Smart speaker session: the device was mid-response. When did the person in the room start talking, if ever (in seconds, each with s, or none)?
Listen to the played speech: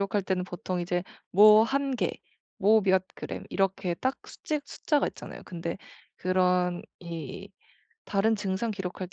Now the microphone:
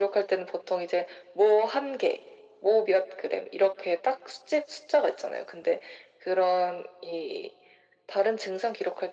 none